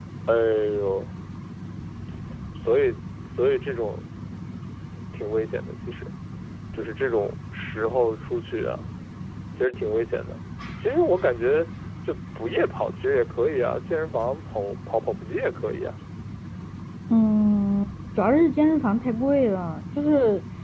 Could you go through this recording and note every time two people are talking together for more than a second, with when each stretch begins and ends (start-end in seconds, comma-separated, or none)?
none